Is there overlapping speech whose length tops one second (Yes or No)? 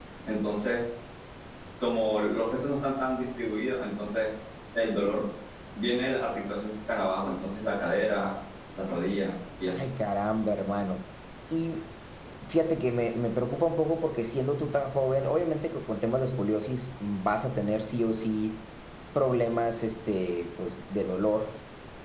No